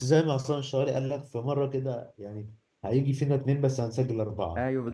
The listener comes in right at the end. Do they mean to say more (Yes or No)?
Yes